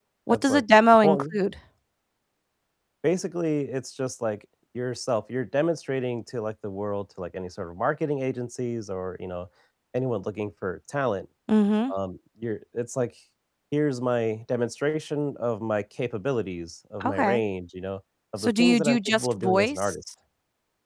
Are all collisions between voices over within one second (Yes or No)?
No